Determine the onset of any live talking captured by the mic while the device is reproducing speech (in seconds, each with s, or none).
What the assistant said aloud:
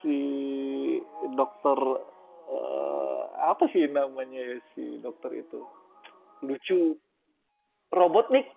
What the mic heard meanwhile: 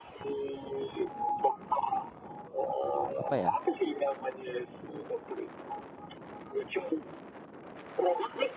3.1 s